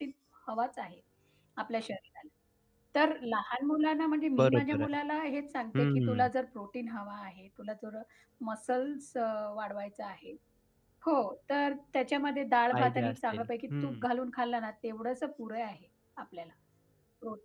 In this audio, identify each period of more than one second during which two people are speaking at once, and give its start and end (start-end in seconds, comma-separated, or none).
12.7-14.0